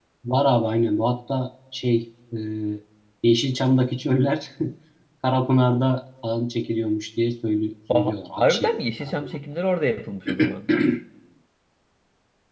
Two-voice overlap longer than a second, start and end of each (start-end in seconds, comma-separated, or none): 7.9-9.4